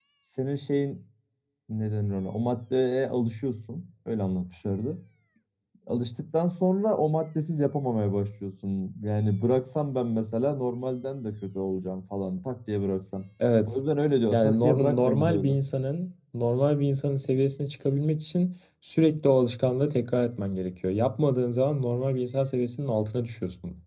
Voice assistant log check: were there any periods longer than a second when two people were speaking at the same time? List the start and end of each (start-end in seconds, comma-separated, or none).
14.3-15.6